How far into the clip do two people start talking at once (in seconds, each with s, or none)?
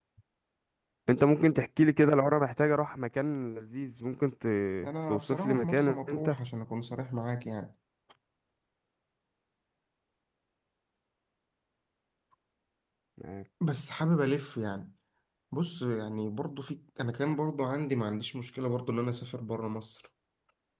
5.1 s